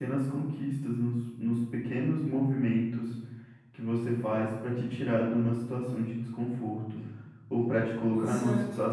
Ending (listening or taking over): listening